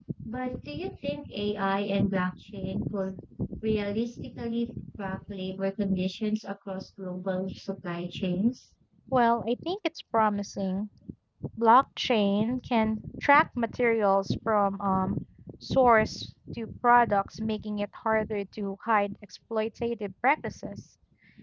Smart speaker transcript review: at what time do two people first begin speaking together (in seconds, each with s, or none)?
none